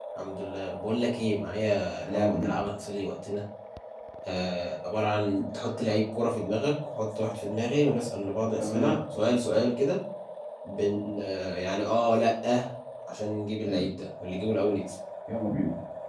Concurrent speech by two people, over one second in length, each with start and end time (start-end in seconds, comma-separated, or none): none